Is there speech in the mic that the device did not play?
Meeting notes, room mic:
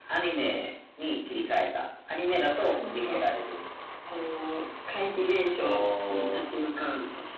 No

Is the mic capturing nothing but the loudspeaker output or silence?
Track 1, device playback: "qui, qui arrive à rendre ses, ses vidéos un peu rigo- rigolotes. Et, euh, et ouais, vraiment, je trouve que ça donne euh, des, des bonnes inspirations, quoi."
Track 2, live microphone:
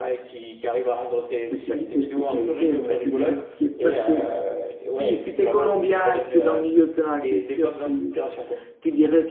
No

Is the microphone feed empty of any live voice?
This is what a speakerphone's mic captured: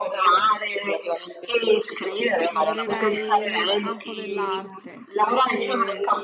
No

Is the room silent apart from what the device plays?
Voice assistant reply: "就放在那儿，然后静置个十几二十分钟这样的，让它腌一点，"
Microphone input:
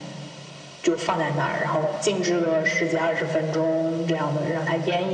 Yes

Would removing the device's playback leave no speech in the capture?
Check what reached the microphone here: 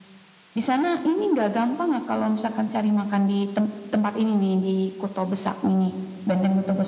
Yes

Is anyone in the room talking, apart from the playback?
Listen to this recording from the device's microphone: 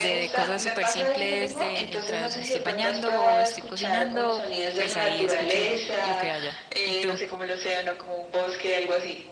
Yes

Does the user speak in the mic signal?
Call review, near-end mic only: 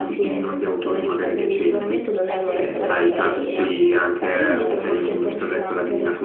Yes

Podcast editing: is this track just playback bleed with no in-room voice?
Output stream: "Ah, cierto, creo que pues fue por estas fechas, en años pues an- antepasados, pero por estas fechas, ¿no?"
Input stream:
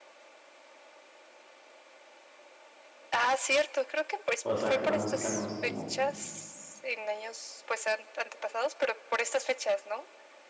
No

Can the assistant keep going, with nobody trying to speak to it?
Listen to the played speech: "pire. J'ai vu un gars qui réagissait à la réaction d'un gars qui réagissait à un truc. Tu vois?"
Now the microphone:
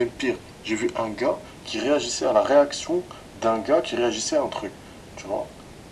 Yes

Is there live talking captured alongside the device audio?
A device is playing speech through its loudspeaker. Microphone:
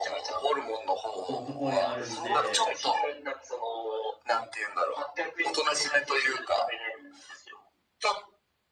Yes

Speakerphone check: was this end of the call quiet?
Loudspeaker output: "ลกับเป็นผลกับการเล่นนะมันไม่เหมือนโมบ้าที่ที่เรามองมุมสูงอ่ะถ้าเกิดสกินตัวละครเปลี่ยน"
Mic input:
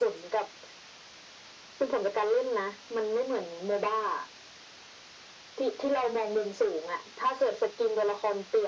Yes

